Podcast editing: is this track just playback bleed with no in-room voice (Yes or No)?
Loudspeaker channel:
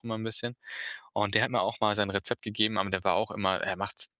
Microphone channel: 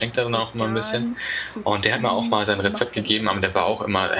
No